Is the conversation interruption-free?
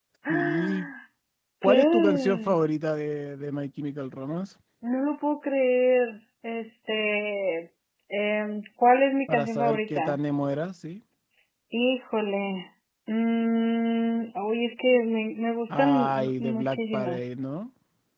No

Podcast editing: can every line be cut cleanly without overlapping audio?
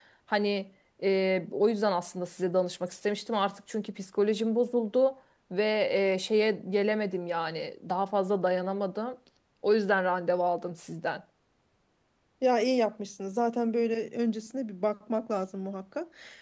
Yes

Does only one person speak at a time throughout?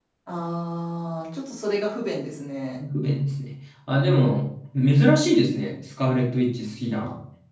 Yes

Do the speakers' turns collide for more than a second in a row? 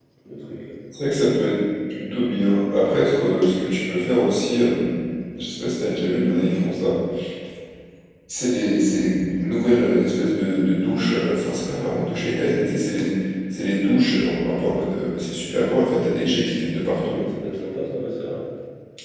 No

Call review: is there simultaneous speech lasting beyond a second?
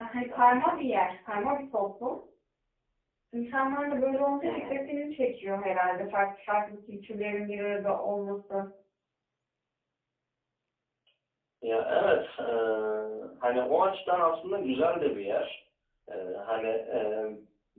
No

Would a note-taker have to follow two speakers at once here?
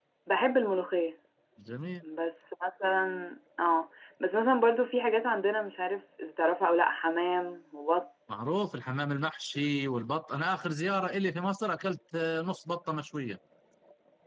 No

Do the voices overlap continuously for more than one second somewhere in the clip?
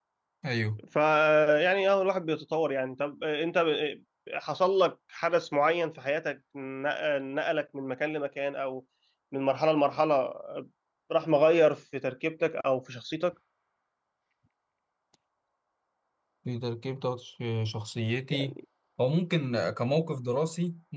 No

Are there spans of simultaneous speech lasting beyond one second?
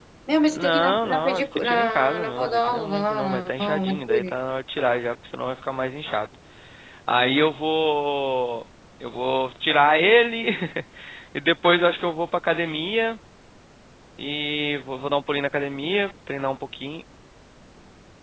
Yes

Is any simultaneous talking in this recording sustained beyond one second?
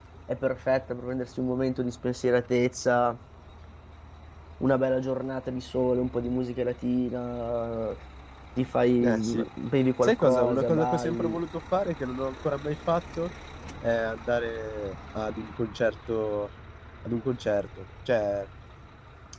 Yes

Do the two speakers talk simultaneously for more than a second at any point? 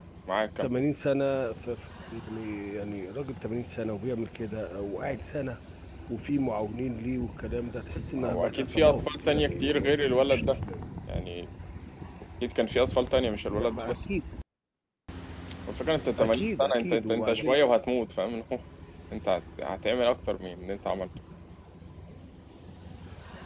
Yes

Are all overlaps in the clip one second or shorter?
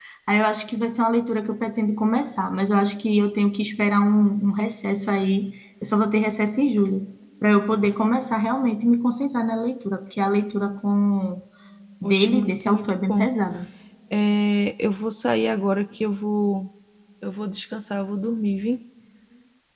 No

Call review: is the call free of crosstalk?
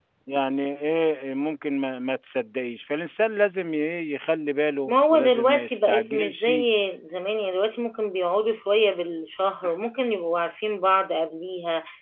No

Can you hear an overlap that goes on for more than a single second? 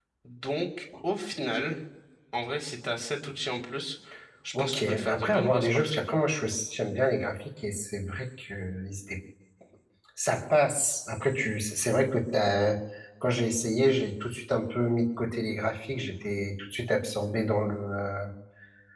Yes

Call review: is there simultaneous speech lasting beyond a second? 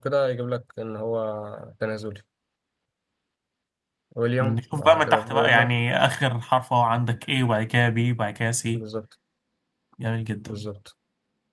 Yes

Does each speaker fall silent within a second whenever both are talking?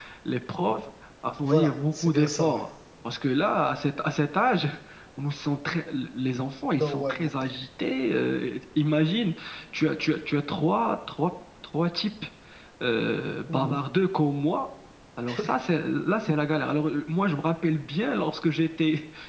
No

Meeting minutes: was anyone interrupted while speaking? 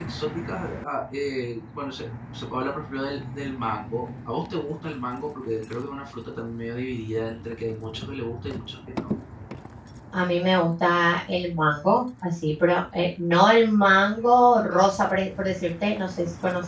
No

